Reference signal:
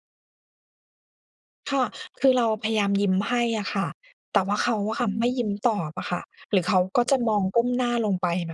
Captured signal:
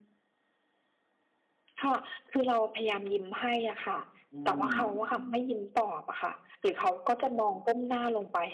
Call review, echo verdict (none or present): present